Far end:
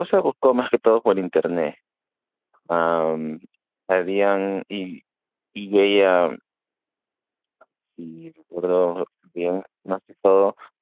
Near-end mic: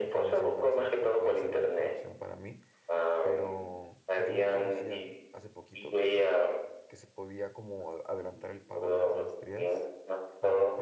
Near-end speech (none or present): present